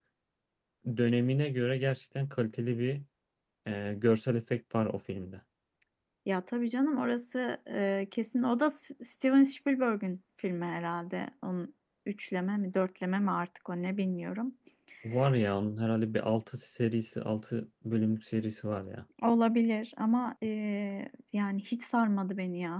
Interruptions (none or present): none